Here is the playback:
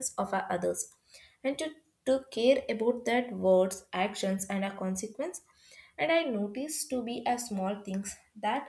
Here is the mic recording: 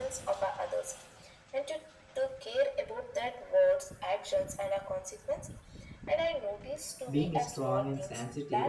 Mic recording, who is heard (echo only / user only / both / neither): both